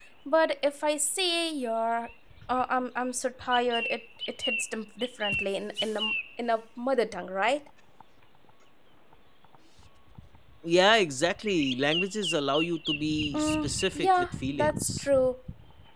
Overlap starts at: 13.3 s

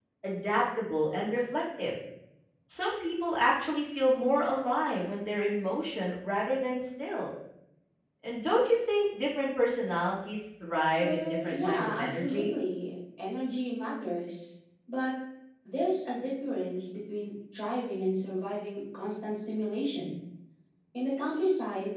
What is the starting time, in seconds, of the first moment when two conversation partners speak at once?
11.0 s

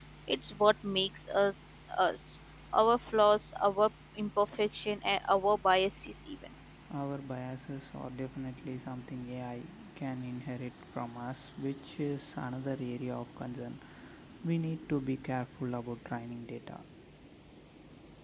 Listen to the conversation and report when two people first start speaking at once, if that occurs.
none

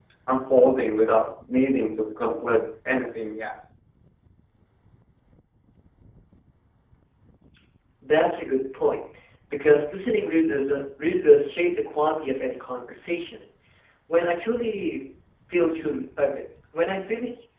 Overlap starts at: none

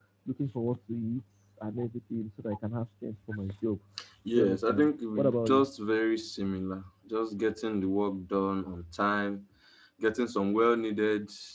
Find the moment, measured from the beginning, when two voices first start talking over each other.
4.3 s

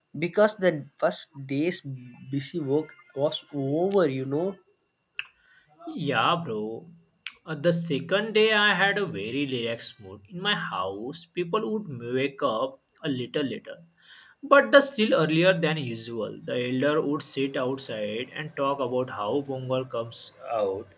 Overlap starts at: none

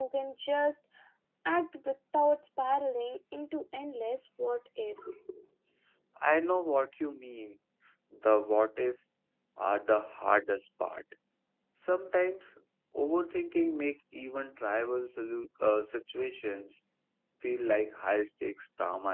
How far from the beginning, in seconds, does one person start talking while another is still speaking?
none

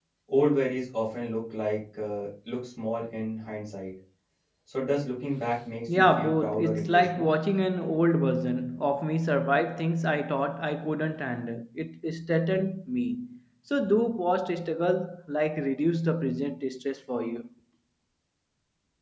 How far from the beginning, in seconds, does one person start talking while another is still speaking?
5.9 s

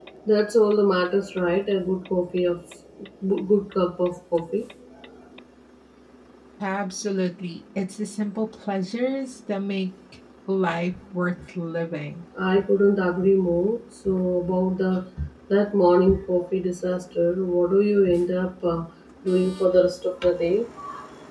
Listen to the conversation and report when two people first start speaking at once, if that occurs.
none

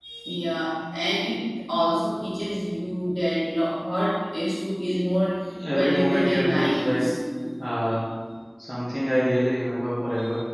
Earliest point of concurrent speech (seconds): 5.7 s

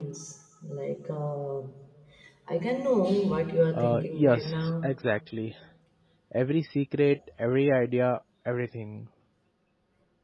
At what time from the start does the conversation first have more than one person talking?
3.7 s

